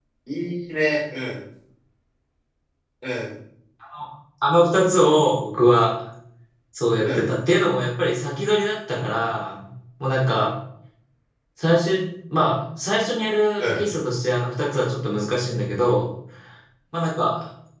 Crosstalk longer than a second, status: none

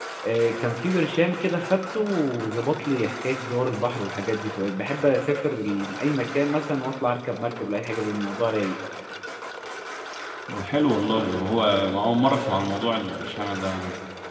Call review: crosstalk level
none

